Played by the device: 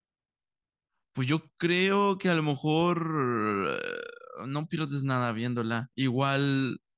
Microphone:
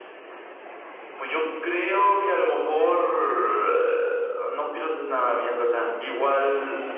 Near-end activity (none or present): none